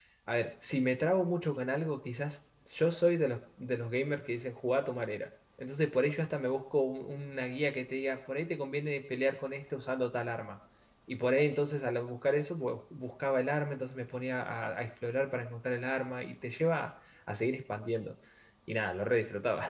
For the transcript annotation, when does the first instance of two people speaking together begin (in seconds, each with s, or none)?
none